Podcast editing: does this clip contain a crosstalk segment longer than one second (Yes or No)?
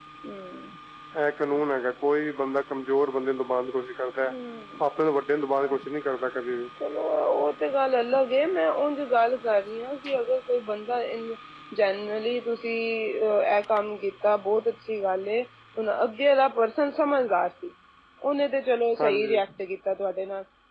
No